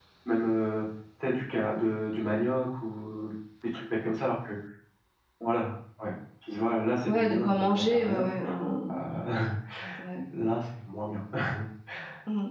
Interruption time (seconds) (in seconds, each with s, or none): 7.1 s